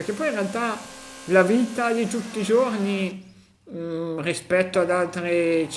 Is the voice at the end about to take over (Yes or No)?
No